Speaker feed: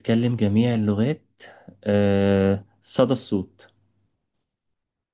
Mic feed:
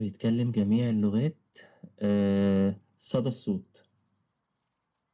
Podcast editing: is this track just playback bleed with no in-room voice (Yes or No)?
Yes